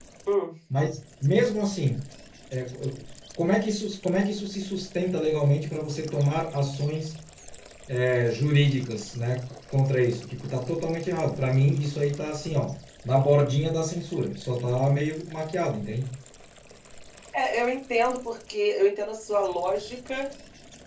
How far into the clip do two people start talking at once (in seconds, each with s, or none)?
none